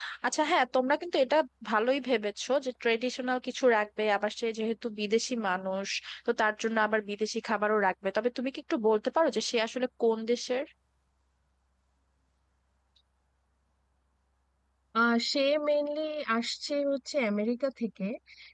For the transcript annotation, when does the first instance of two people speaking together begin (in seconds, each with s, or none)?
none